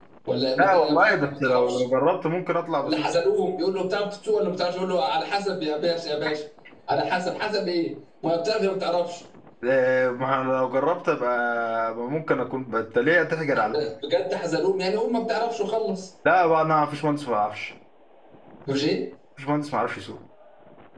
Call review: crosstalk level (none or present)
present